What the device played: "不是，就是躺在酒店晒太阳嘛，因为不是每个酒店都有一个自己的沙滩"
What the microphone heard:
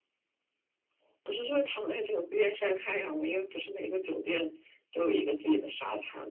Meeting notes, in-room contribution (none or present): none